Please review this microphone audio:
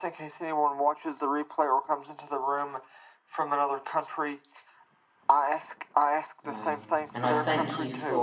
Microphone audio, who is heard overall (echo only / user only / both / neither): both